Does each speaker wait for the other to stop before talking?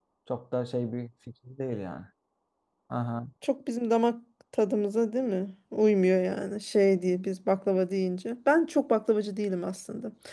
Yes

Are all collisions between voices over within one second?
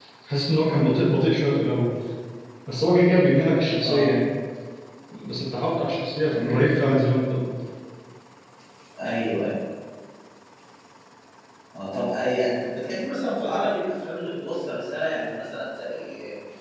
Yes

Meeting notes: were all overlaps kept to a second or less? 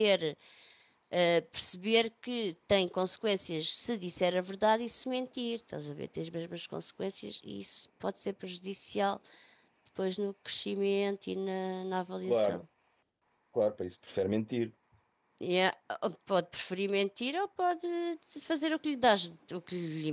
Yes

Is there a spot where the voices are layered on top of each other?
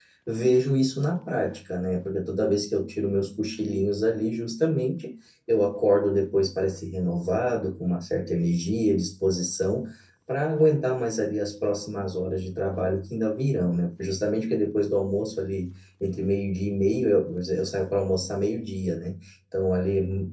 No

